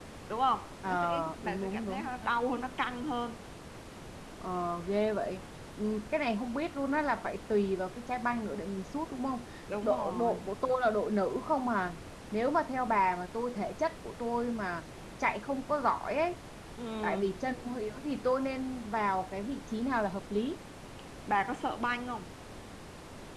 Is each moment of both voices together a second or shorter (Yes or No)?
No